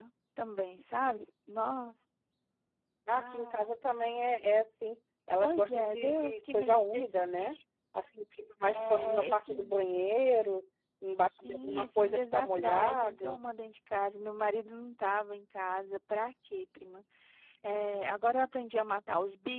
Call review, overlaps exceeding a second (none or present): present